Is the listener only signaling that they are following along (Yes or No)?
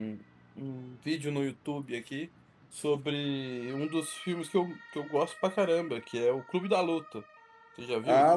No